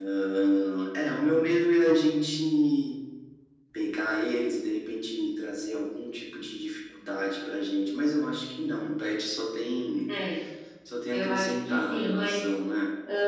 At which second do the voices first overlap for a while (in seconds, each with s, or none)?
11.1 s